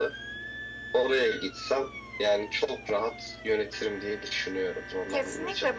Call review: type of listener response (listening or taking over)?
taking over